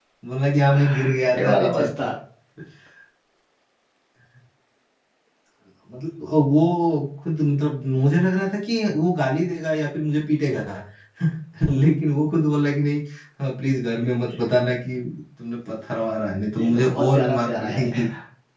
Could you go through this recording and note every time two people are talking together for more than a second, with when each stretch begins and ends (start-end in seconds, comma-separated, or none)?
16.6-17.9